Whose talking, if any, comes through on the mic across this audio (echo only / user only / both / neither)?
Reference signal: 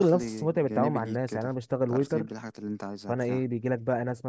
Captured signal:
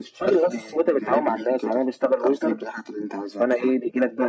echo only